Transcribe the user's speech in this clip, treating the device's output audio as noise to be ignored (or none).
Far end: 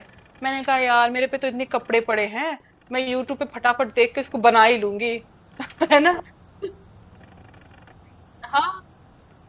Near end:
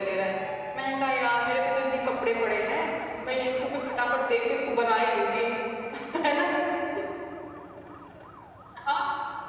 none